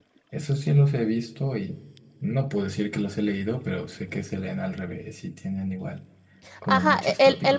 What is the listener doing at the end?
taking over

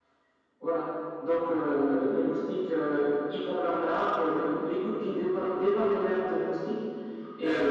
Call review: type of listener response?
listening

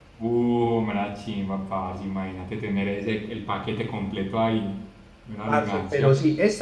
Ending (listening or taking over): taking over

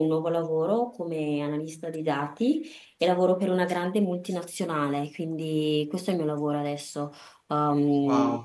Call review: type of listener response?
taking over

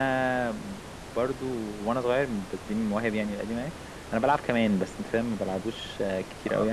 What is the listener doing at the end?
taking over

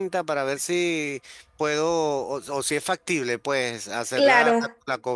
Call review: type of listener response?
listening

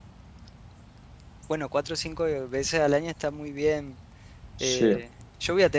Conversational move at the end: listening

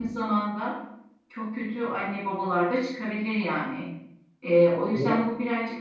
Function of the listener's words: listening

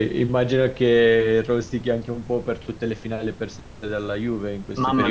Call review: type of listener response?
taking over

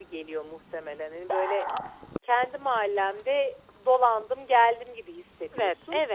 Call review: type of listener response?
taking over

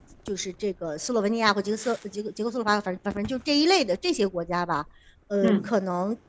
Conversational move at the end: listening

